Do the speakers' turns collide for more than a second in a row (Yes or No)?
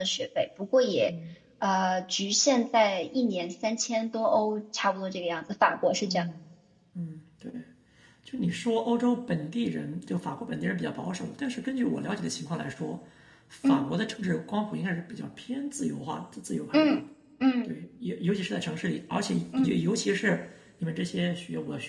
No